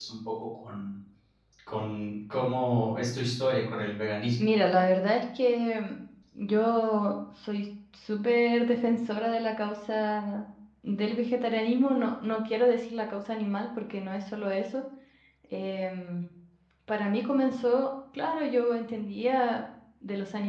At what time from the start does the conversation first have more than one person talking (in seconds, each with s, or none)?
none